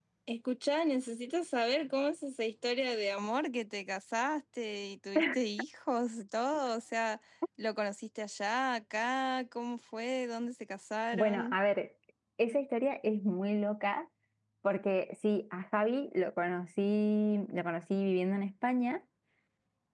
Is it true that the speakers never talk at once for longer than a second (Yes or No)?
Yes